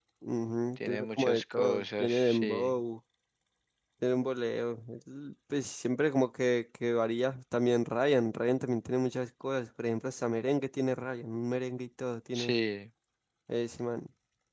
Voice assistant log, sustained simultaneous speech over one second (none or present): present